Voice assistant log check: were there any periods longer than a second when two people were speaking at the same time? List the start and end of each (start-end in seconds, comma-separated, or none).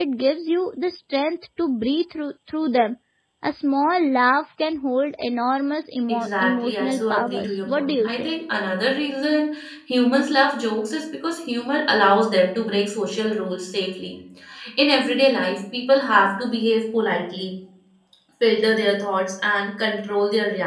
6.1-8.3